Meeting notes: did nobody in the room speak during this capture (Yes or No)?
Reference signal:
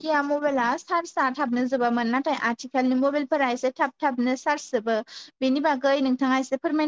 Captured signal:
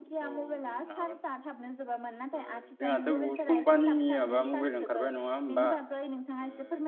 No